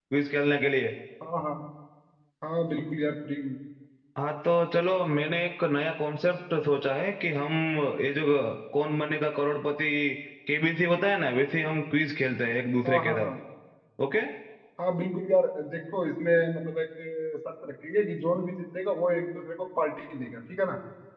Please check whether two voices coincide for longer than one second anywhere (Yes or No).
No